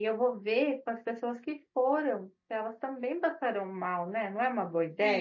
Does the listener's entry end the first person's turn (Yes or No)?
Yes